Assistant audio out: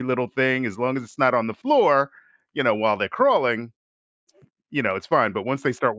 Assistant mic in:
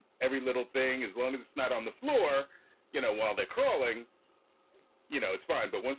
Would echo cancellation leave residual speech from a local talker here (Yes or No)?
No